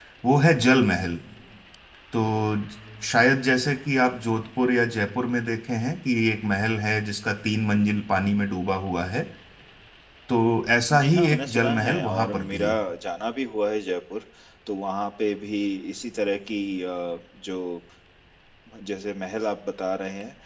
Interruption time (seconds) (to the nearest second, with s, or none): 11 s